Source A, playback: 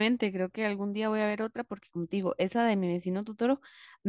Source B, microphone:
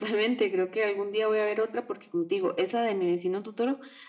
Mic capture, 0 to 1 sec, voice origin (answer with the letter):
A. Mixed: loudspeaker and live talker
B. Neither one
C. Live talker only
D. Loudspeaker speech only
D